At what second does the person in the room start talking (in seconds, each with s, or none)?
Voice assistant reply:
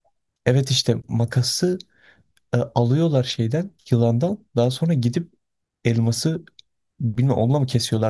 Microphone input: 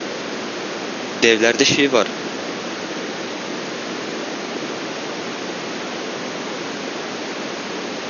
1.1 s